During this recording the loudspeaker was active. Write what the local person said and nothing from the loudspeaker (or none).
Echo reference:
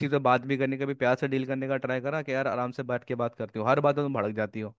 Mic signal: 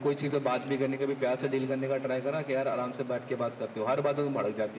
none